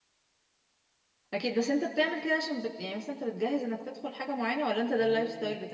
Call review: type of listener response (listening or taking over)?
taking over